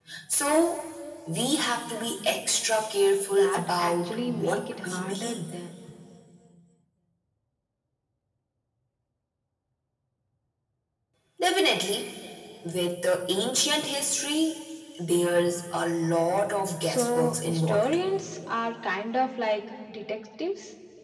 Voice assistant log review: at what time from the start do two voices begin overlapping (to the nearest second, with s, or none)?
3 s